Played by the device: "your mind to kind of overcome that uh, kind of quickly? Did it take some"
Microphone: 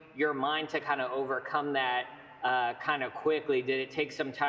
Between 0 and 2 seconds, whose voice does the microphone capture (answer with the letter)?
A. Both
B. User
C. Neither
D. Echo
D